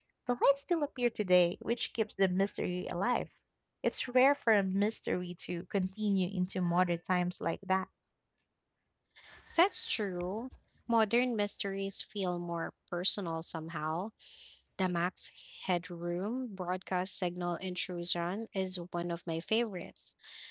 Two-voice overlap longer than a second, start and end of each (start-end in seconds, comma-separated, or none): none